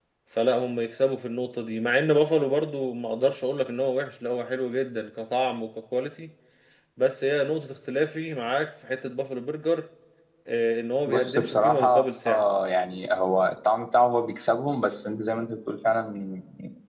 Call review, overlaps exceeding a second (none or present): present